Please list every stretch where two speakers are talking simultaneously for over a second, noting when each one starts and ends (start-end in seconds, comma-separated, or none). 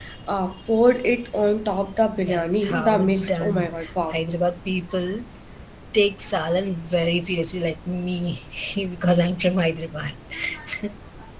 2.2-3.7